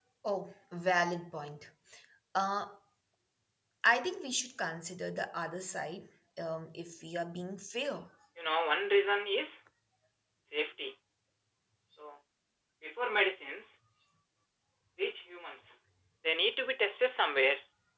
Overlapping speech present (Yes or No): No